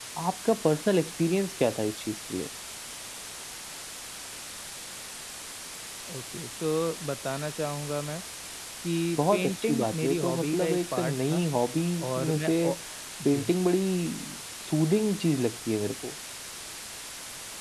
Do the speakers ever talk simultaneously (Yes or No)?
Yes